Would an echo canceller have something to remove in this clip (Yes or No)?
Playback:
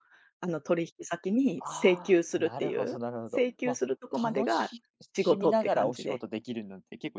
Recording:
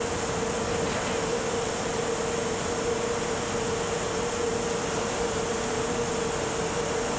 No